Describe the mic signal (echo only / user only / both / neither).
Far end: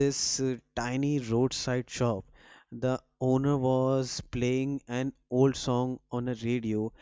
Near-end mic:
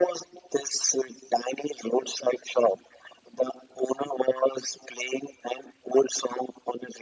echo only